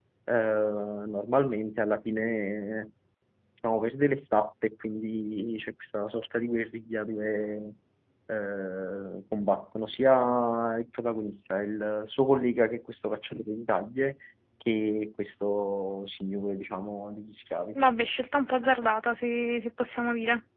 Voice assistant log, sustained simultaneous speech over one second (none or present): none